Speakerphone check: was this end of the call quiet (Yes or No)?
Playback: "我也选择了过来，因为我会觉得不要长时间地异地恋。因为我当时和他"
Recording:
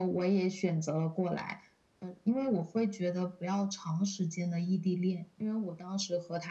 Yes